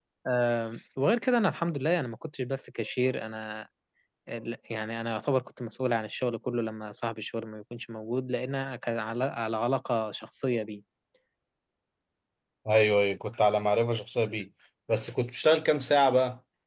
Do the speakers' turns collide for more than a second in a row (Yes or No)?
No